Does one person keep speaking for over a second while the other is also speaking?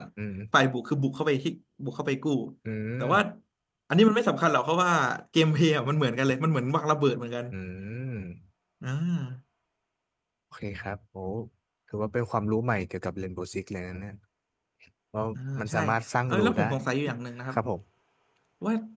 No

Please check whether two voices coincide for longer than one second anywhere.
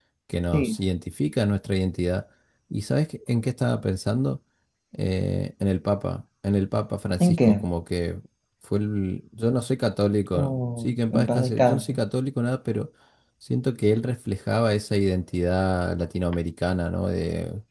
Yes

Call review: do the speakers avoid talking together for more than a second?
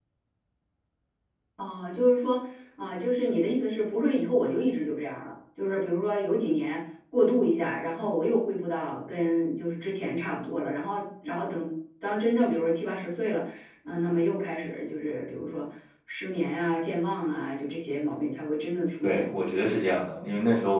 Yes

